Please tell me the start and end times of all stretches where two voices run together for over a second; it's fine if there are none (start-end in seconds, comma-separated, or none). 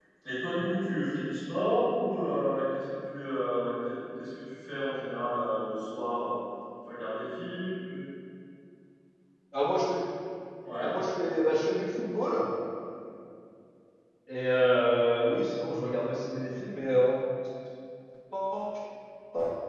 none